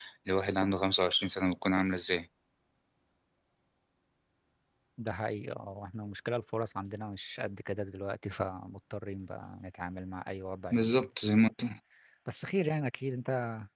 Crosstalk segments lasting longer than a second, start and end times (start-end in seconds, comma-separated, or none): none